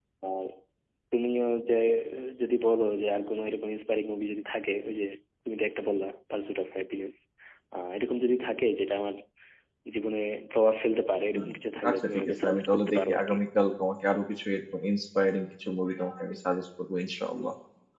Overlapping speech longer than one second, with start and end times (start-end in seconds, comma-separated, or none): 11.9-13.4